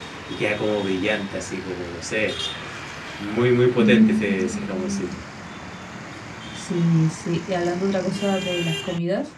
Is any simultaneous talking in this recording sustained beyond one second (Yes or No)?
Yes